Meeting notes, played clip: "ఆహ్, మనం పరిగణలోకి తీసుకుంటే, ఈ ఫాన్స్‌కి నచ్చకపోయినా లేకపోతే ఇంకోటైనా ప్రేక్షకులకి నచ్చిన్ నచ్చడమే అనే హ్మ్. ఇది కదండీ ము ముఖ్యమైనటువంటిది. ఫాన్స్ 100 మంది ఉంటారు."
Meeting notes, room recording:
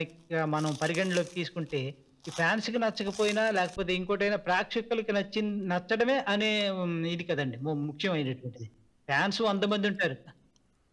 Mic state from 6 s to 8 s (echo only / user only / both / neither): echo only